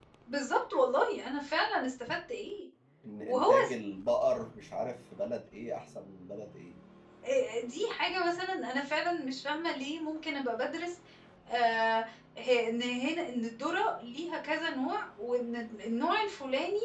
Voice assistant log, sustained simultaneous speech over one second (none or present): none